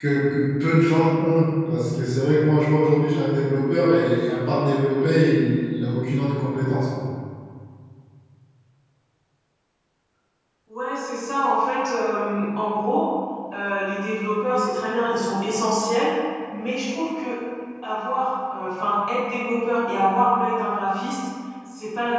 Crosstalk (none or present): none